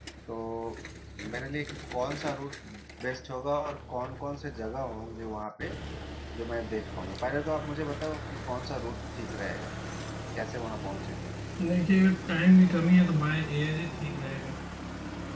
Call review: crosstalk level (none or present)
none